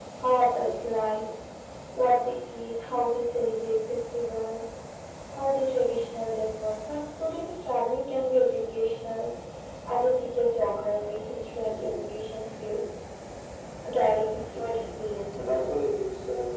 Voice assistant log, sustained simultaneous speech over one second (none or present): present